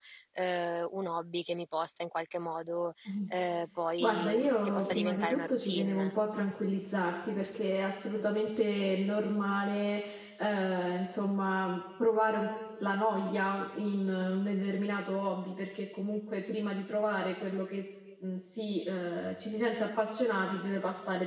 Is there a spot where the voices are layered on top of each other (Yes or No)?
Yes